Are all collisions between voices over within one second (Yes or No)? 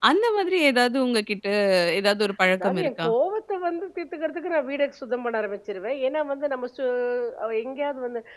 Yes